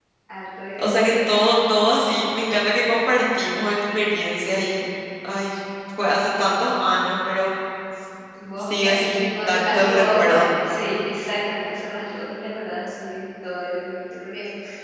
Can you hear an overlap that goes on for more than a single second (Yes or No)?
Yes